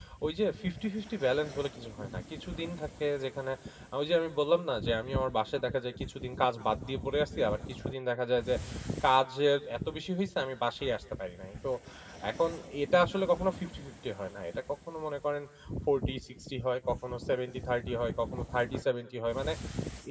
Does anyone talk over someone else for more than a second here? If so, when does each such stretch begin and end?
none

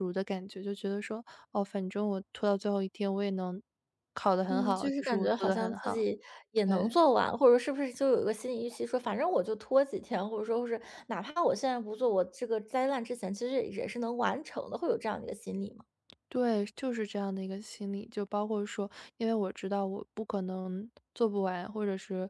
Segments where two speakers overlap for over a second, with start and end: 4.5-6.0

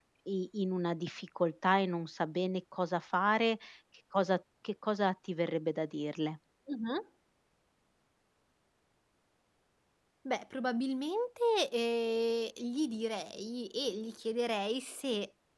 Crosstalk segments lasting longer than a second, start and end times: none

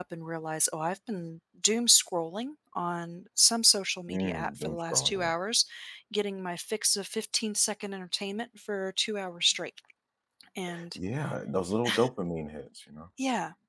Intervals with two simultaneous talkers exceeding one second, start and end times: 4.1-5.3

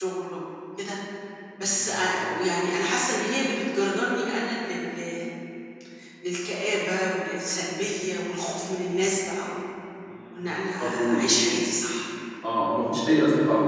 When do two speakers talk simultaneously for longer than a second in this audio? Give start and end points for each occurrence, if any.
none

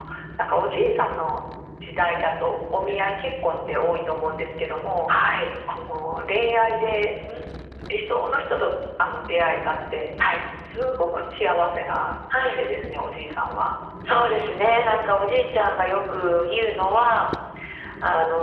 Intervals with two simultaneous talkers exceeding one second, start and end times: none

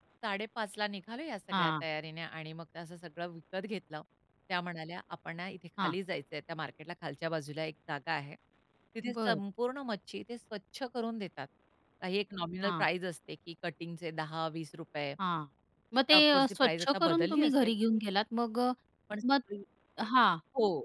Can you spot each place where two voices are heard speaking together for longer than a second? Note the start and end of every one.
16.1-17.7

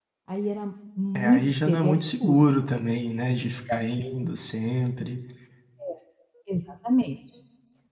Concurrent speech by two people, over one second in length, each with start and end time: 1.2-2.5

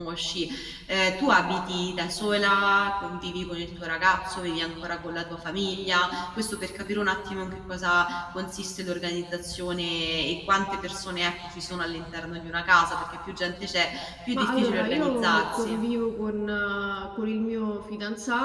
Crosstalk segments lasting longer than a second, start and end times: 14.3-15.8

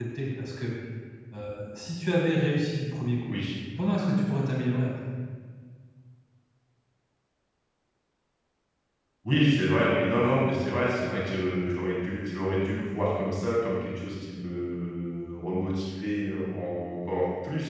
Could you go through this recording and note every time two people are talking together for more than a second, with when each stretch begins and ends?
none

